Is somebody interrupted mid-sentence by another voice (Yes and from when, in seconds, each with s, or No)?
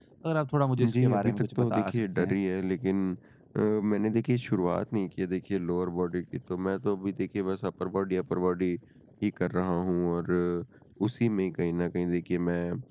Yes, from 0.8 s